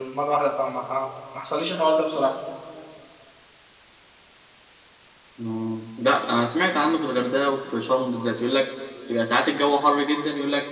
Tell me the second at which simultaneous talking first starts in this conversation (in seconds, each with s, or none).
none